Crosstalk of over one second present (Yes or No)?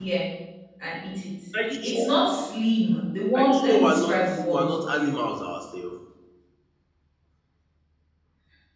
Yes